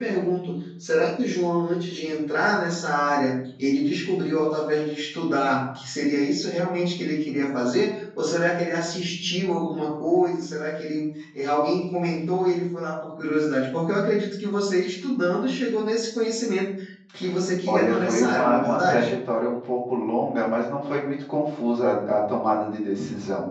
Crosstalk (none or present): present